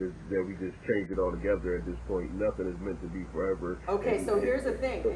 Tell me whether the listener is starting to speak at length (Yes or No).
Yes